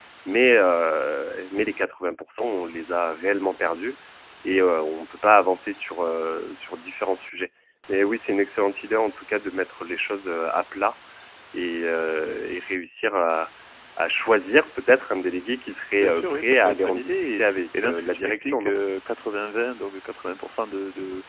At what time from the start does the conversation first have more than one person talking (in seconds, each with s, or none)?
16.0 s